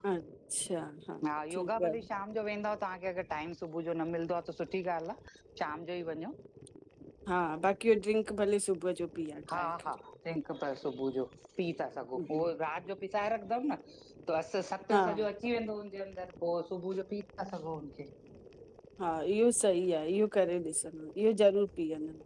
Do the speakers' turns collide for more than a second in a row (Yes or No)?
No